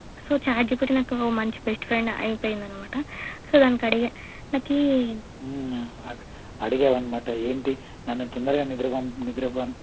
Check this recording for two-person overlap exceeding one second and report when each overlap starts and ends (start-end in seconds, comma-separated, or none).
none